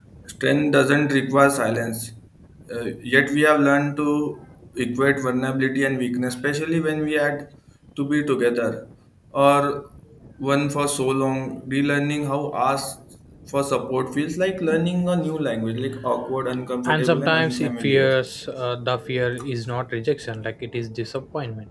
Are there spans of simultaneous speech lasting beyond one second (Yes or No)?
Yes